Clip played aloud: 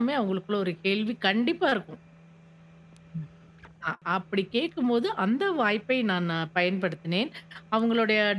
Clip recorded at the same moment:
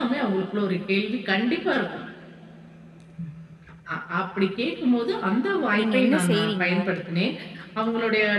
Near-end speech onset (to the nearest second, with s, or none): 6 s